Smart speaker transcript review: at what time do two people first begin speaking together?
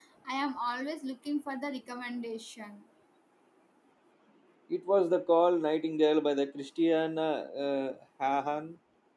none

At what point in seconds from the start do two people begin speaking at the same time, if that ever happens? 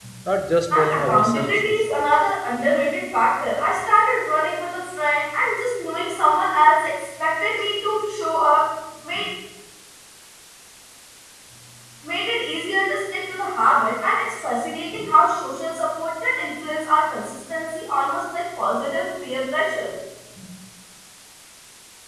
0.8 s

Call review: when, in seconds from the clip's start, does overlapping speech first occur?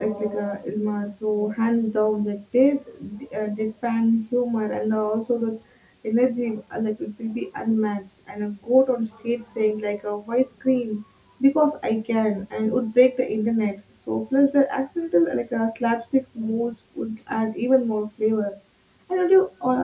none

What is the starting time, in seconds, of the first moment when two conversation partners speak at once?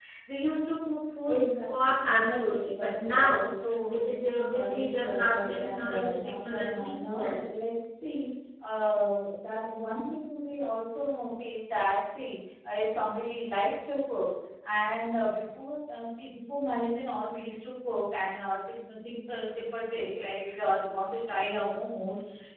1.3 s

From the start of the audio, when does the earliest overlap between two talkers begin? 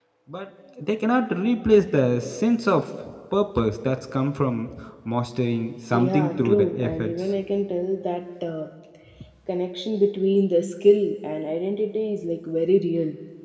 5.9 s

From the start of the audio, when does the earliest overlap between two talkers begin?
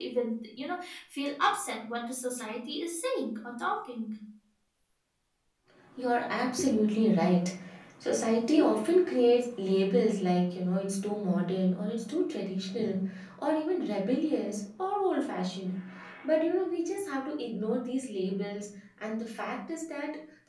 none

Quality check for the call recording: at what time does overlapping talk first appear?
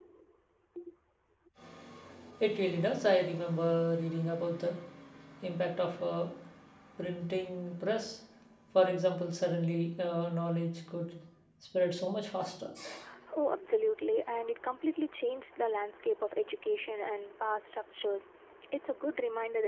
none

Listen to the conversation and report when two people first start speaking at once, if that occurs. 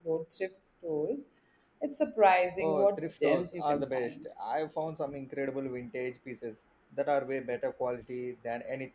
2.6 s

